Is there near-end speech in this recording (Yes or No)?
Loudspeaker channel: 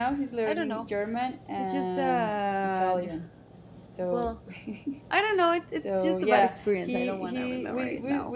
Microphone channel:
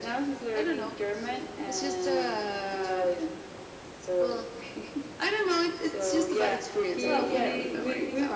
Yes